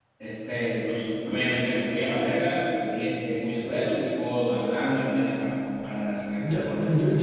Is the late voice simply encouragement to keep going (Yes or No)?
No